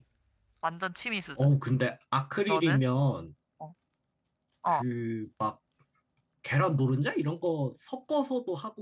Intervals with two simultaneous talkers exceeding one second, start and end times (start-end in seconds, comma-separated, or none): none